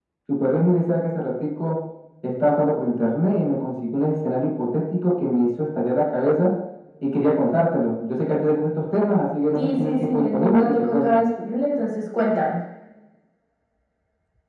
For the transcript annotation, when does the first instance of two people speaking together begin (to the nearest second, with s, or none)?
10 s